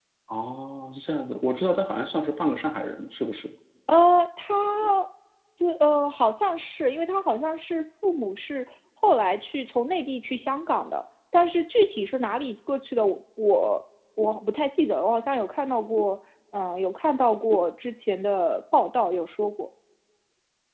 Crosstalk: none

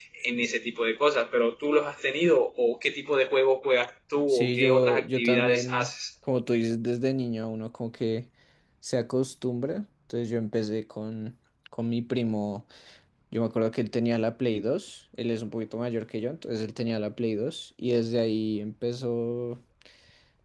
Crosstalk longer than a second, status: present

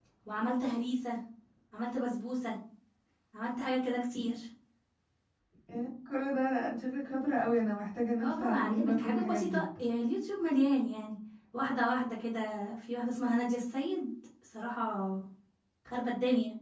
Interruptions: present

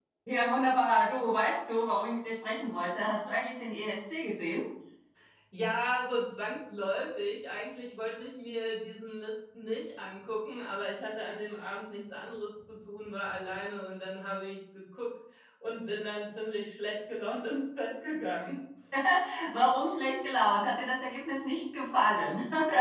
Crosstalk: none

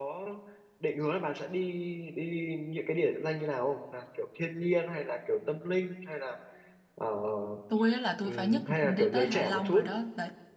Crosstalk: present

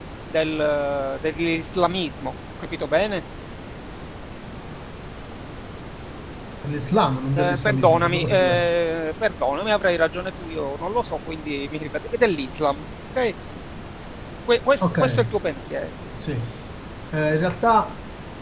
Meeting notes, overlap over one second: present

